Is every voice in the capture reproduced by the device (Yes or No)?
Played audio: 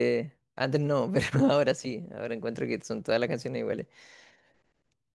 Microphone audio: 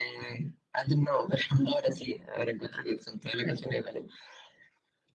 Yes